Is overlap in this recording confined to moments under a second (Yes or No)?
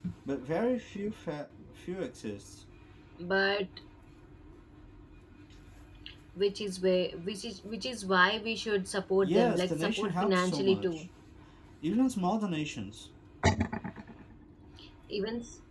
No